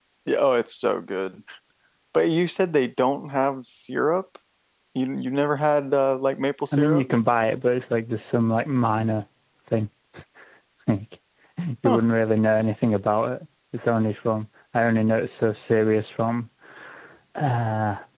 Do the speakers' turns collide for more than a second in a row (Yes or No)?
No